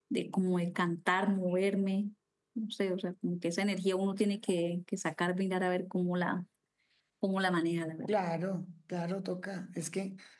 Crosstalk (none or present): none